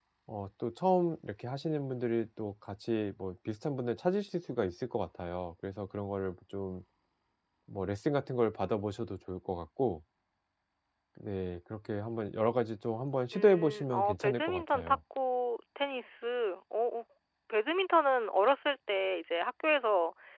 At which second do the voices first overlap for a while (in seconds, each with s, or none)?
13.3 s